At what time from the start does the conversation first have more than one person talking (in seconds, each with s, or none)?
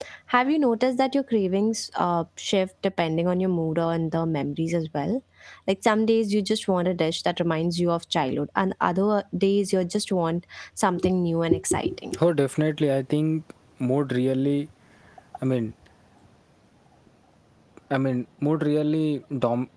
none